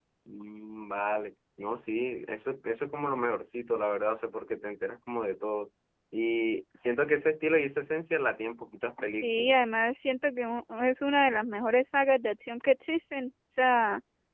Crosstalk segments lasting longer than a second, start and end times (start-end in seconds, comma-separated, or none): none